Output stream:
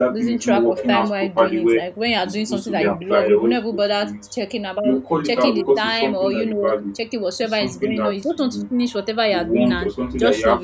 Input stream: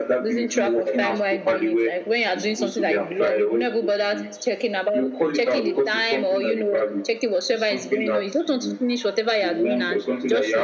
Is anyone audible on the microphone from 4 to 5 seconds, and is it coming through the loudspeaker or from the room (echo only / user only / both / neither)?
echo only